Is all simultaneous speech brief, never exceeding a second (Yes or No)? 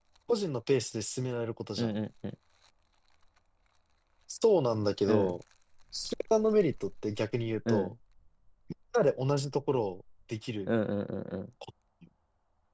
Yes